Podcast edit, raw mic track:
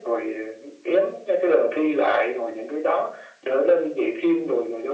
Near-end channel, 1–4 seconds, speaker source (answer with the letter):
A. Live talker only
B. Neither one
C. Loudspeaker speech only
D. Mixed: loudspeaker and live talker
C